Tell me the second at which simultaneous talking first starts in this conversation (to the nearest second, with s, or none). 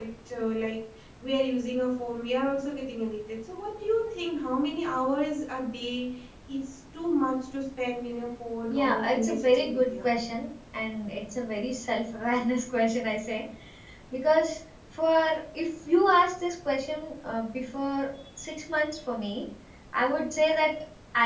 9 s